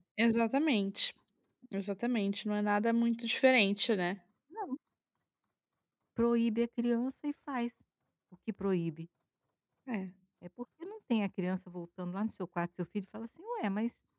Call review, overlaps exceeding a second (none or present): none